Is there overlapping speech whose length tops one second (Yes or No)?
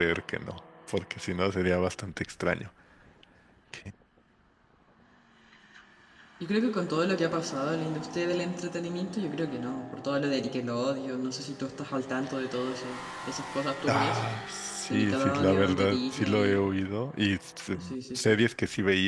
Yes